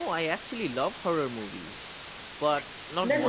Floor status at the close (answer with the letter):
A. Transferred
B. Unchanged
A